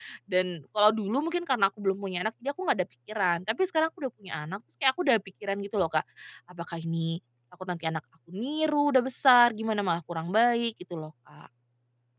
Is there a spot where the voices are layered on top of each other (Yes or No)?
No